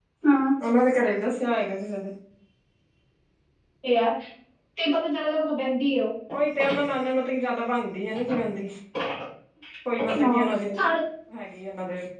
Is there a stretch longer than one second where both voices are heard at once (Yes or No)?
No